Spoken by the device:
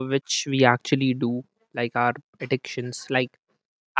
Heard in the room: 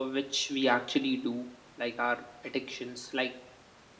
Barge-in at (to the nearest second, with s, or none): none